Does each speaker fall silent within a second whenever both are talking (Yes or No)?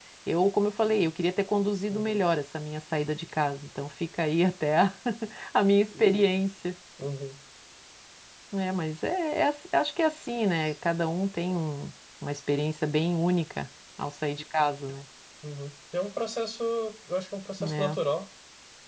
Yes